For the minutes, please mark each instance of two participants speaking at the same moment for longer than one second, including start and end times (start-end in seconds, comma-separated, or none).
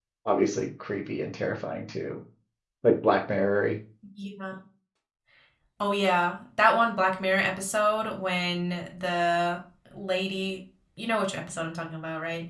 none